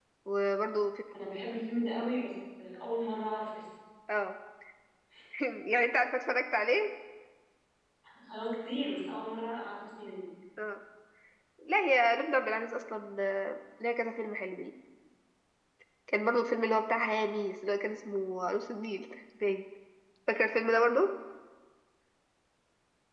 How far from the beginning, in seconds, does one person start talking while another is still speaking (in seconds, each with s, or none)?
none